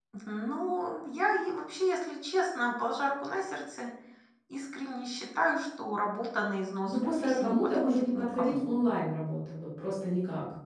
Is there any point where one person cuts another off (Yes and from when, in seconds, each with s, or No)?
Yes, from 6.9 s